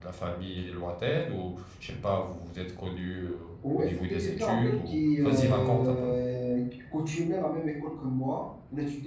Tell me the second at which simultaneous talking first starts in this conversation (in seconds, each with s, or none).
3.6 s